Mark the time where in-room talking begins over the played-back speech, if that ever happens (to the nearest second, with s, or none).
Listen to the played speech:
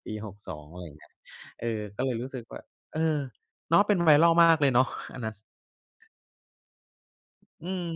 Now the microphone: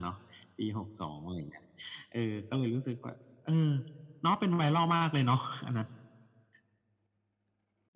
none